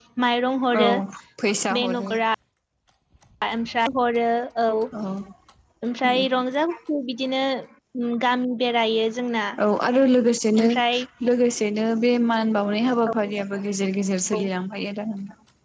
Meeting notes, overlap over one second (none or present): none